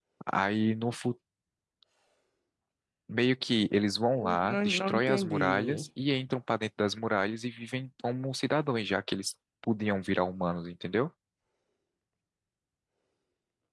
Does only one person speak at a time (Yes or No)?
No